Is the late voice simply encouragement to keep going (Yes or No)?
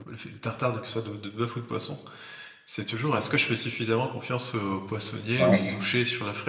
Yes